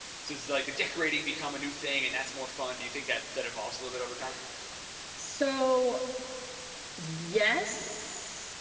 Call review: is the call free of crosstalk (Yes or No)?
Yes